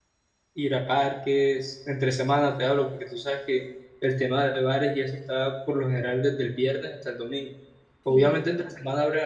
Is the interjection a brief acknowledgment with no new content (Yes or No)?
Yes